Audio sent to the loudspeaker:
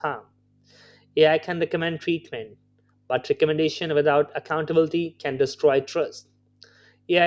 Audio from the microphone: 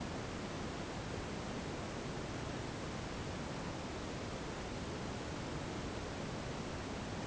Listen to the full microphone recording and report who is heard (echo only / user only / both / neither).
neither